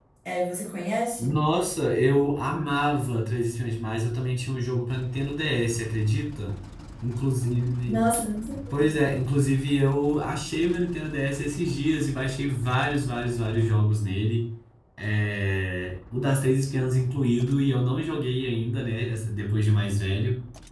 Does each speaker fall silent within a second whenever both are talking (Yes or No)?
Yes